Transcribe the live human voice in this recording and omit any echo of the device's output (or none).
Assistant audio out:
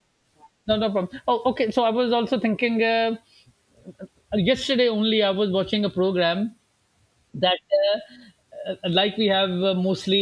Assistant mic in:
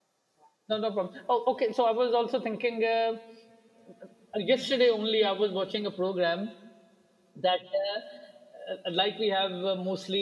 none